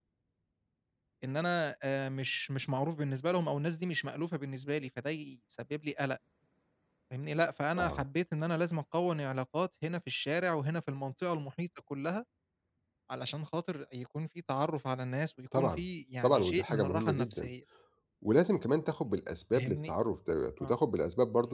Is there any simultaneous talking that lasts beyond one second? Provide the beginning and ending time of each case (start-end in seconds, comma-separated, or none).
16.2-17.5